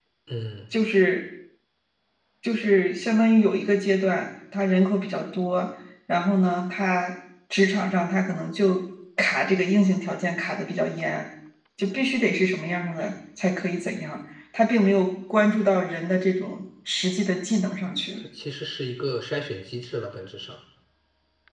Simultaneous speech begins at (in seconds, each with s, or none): none